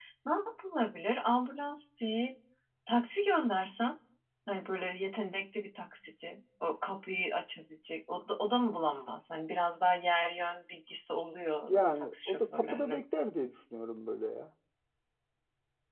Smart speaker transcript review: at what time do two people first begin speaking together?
12 s

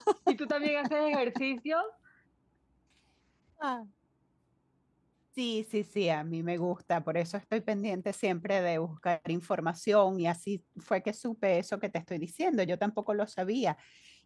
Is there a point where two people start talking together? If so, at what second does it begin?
none

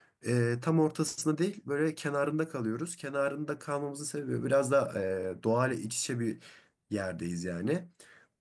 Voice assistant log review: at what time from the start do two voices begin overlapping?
none

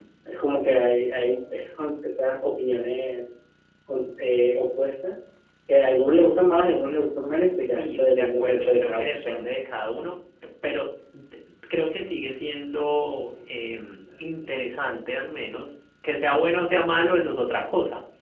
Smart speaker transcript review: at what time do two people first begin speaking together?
8 s

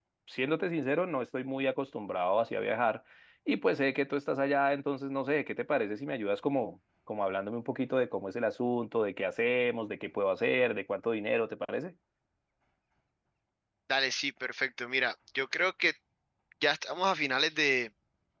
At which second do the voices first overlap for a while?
none

